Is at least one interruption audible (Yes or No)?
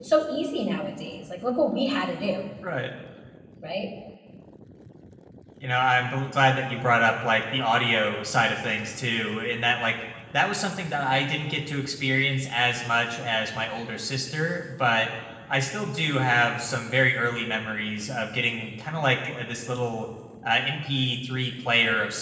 No